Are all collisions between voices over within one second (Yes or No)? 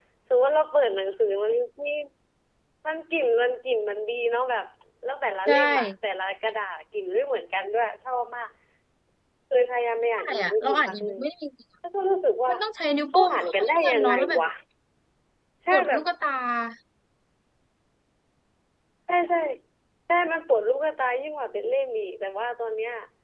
No